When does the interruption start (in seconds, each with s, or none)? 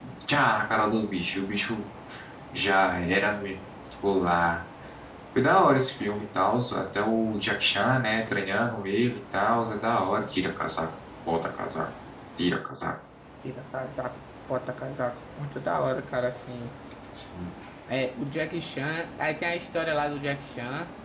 none